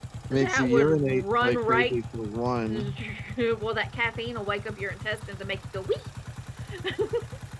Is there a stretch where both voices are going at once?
Yes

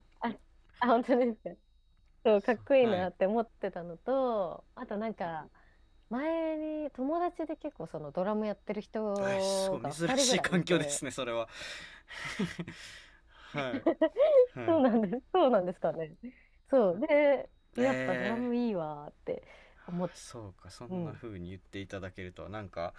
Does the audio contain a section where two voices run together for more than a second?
Yes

